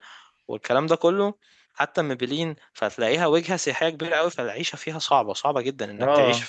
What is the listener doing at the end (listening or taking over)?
listening